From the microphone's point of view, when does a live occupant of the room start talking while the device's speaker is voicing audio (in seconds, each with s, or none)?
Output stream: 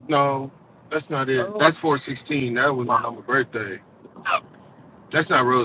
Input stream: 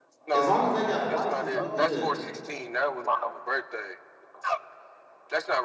0.3 s